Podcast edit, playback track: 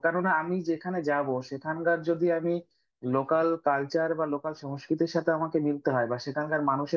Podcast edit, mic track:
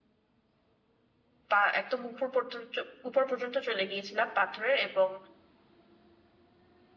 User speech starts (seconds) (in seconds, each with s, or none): 1.5 s